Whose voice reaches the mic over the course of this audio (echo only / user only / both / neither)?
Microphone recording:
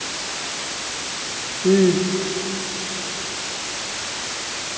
user only